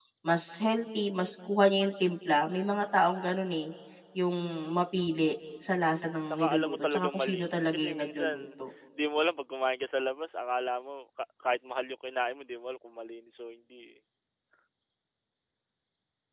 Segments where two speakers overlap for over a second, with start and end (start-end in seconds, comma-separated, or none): 6.3-8.3